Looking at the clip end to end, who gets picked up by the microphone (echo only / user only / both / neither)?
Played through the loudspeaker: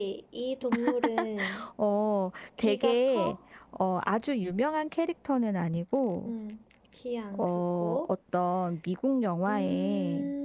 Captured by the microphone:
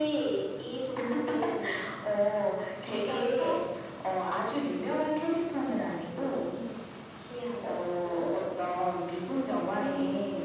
echo only